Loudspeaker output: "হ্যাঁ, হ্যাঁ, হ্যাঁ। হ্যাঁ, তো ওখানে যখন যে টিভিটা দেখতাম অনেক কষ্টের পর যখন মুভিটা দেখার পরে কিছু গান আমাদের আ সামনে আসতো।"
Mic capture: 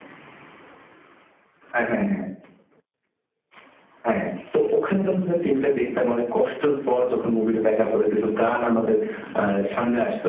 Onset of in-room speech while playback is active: none

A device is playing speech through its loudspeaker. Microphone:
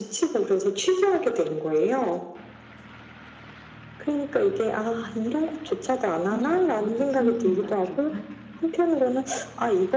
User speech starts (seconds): 6 s

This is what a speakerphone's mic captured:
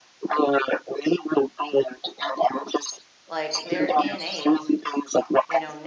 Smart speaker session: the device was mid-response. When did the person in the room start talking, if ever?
3 s

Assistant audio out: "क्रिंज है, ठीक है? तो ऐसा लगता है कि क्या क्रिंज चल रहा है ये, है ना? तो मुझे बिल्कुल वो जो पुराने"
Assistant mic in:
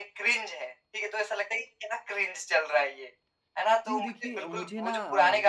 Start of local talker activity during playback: 4 s

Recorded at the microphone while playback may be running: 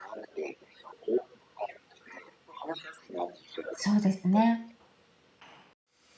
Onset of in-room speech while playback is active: 4 s

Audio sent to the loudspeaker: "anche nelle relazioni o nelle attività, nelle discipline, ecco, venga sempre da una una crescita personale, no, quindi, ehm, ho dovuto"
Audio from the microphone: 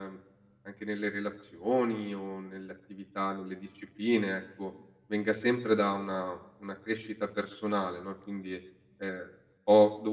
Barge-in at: none

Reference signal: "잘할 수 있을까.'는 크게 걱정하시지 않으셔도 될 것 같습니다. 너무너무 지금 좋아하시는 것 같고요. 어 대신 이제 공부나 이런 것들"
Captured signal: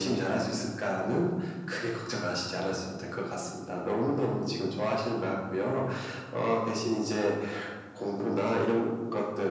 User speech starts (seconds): none

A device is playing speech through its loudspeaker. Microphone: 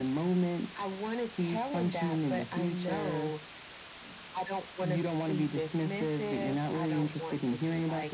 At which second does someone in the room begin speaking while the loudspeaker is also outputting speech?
none

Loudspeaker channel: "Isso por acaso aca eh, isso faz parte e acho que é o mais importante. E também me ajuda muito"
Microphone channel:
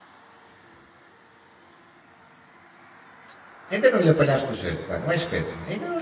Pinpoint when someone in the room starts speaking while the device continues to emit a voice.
4 s

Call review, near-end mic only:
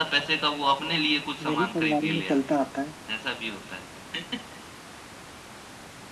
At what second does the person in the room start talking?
1 s

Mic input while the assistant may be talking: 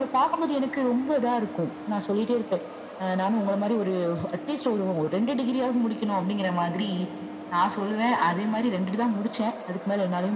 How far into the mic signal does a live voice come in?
none

